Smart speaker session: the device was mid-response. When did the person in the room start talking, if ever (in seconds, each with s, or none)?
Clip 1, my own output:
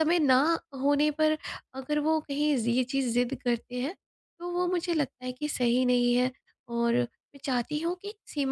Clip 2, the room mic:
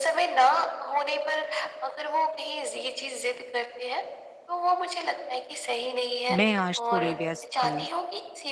6.3 s